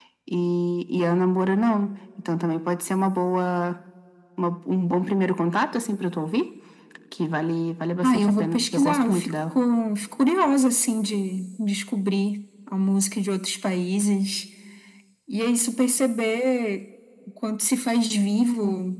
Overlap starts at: 8.0 s

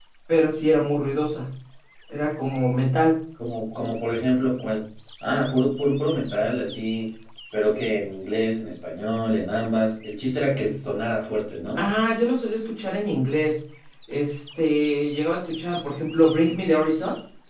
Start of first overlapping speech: none

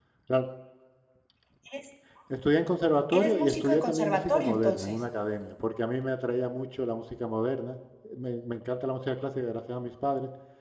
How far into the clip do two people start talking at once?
3.1 s

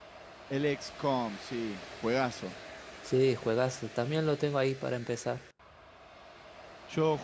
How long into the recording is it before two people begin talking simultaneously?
none

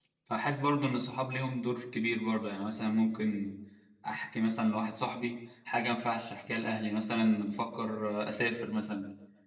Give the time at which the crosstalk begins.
none

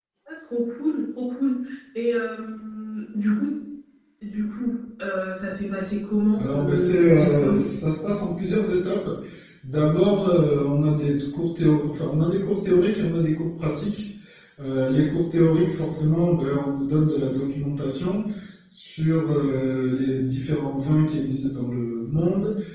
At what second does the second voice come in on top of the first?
6.4 s

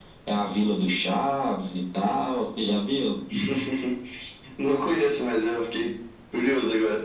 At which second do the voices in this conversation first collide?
none

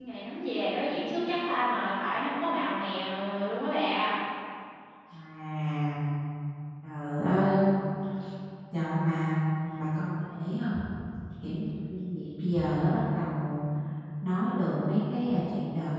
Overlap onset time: none

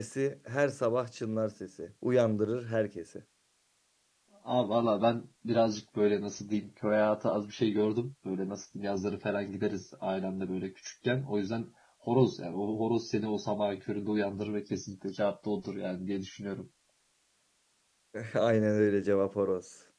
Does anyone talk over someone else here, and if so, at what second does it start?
none

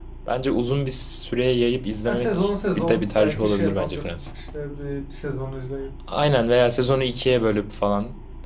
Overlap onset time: 2.1 s

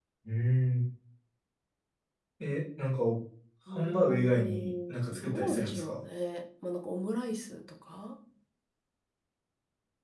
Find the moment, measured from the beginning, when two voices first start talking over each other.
3.7 s

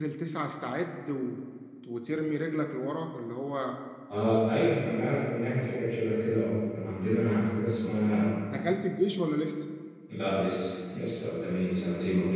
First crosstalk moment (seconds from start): none

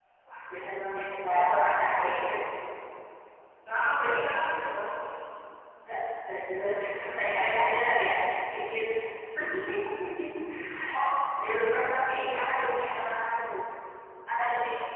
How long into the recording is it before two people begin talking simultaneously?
0.5 s

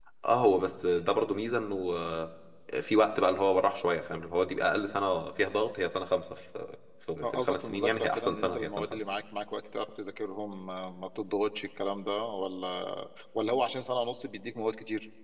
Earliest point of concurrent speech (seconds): 7.2 s

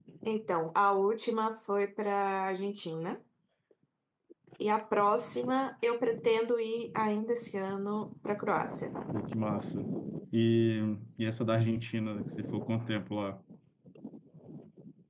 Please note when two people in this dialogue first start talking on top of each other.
none

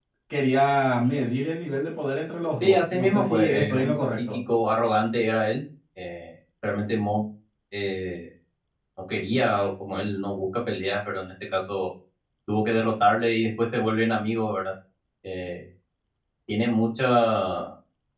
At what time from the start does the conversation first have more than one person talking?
2.6 s

